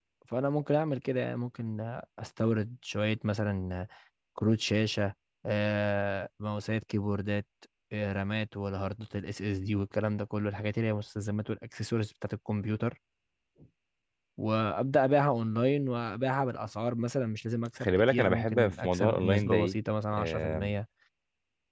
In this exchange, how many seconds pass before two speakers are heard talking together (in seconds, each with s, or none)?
17.8 s